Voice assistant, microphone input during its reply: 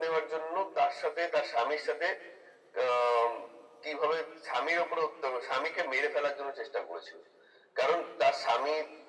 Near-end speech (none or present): none